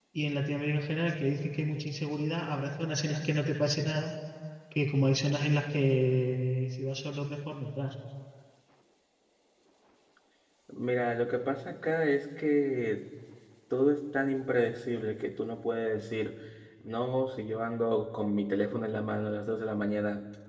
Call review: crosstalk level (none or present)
none